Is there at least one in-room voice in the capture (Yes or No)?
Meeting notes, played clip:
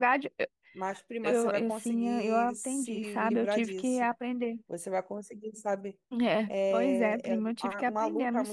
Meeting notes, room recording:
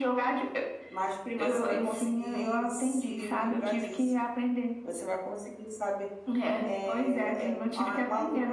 No